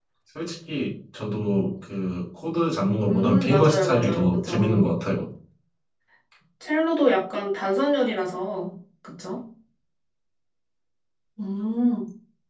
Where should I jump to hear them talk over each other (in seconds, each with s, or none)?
3.1 s